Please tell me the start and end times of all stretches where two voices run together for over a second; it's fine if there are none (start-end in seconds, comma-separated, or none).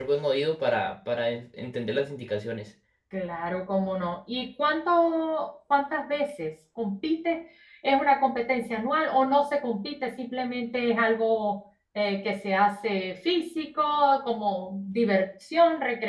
none